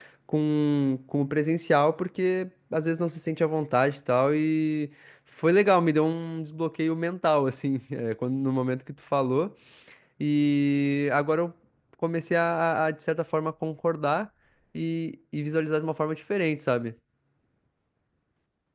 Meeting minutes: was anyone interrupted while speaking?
No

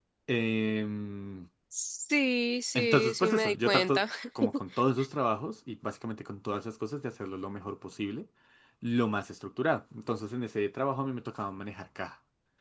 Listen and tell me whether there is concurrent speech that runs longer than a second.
Yes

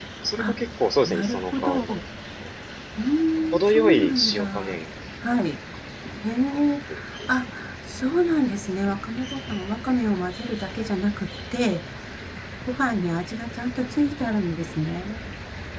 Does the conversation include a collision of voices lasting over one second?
Yes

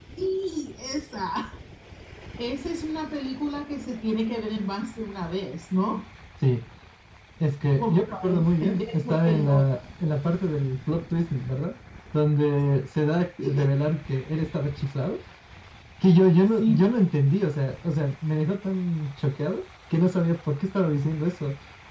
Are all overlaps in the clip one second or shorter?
No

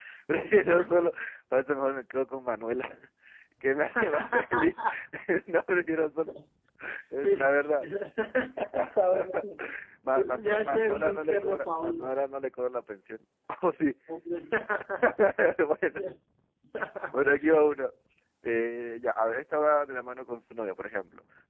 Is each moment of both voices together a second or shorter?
No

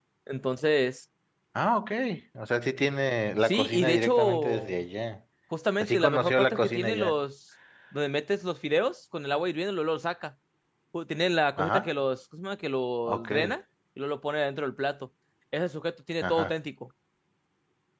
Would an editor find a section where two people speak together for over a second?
Yes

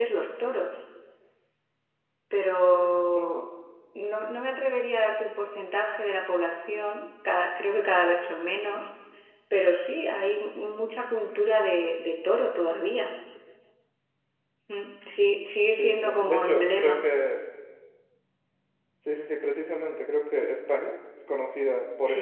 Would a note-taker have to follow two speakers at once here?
Yes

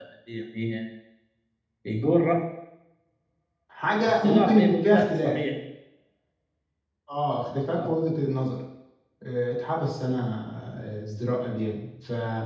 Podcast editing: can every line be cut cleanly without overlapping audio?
No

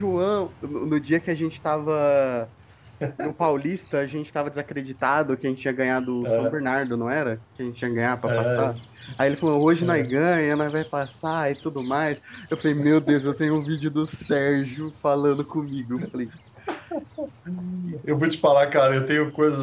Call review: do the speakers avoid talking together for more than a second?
Yes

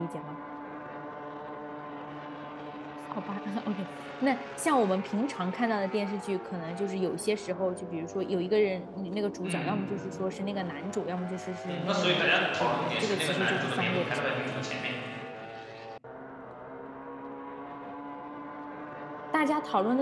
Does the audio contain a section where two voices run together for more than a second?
Yes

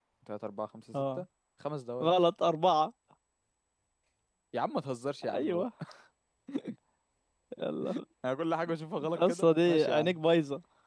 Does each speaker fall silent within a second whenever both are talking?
No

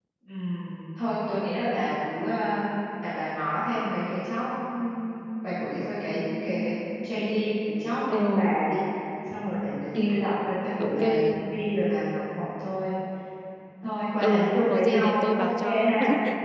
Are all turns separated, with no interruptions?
No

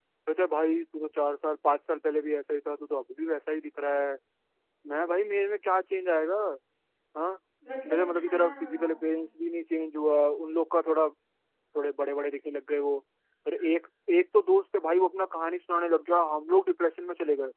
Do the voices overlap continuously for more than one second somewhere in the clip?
Yes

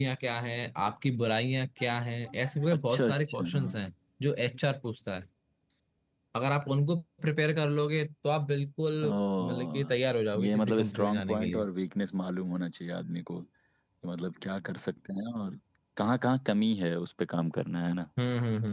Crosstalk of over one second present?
Yes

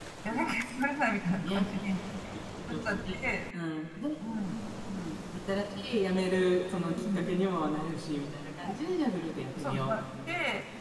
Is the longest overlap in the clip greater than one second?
No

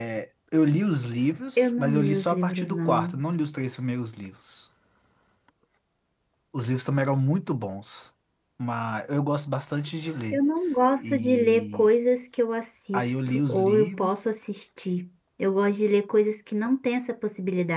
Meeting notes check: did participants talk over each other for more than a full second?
Yes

